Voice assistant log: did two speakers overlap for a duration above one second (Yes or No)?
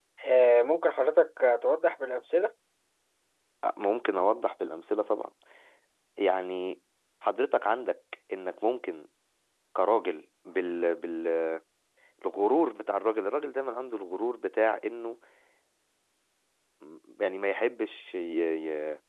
No